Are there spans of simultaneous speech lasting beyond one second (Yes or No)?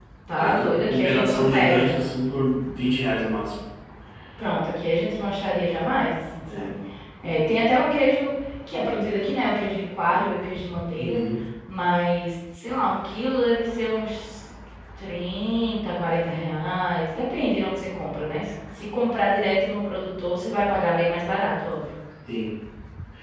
Yes